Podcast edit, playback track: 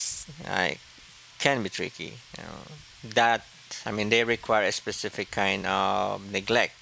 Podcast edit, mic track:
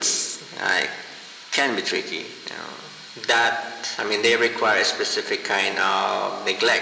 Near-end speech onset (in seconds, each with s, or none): none